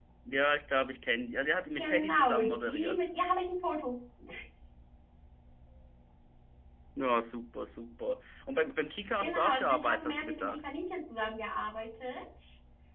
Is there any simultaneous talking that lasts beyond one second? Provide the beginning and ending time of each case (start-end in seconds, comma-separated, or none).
1.7-3.0, 9.2-10.6